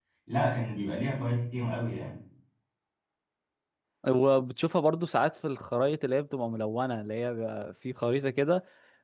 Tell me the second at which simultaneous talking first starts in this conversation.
none

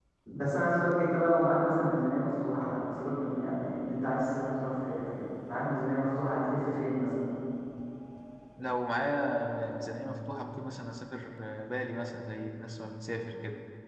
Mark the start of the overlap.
none

